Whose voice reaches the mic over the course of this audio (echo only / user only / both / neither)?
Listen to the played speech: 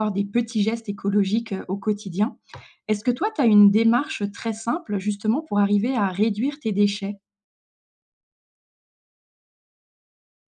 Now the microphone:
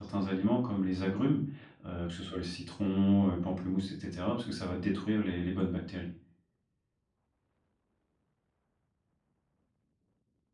user only